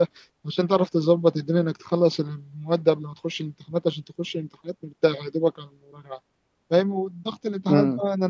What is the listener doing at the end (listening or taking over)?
listening